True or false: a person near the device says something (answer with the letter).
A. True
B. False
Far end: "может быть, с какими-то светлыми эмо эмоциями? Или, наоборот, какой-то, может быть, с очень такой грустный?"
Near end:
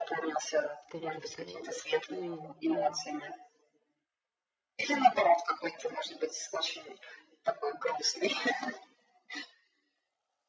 A